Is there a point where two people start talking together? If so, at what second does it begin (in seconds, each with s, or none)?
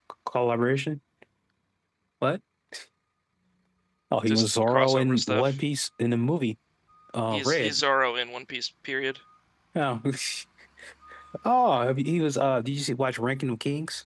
4.3 s